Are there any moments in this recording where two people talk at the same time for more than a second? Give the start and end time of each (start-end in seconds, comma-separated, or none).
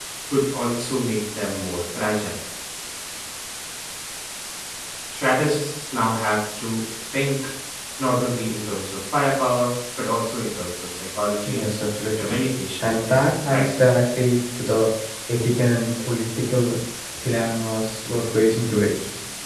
12.8-14.0